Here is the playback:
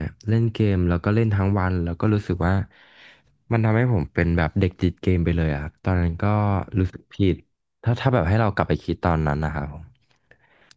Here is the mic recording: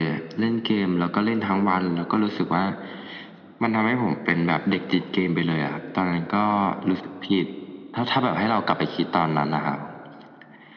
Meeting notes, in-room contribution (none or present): none